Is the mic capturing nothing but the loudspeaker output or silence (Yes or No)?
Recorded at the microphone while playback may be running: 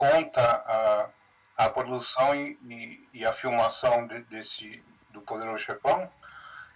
Yes